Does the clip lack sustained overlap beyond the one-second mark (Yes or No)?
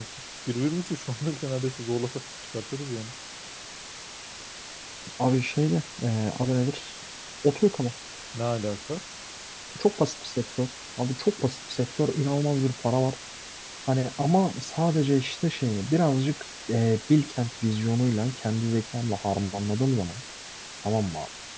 Yes